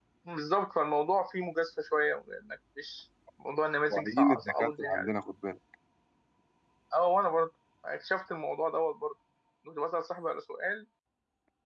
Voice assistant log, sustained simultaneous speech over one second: present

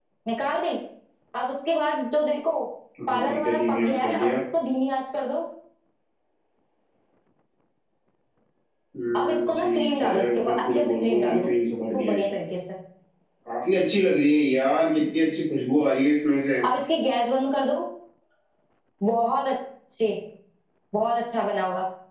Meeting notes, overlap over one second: present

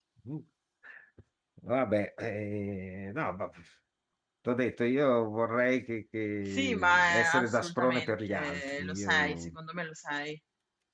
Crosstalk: present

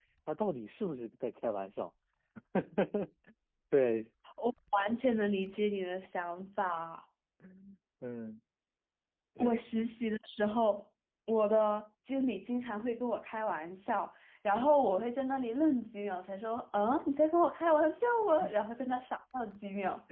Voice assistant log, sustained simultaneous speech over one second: none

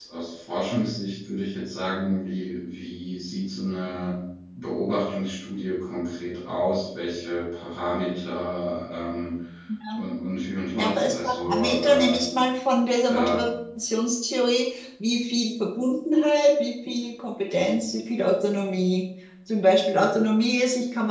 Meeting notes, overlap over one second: present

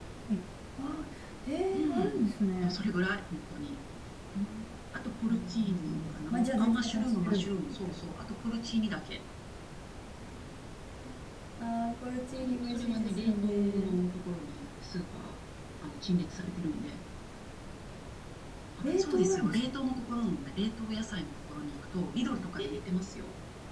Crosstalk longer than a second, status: present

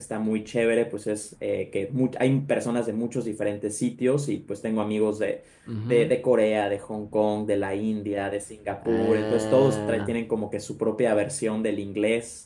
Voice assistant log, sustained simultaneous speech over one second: present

